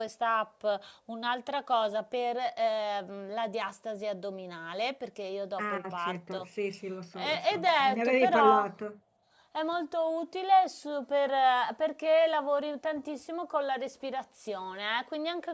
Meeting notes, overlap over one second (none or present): present